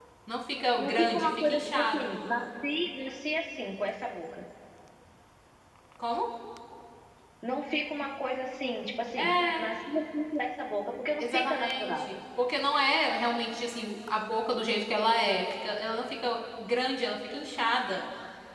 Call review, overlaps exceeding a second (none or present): present